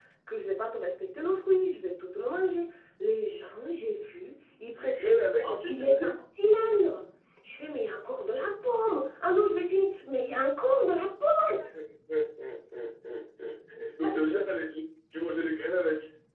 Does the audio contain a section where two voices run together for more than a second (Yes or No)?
Yes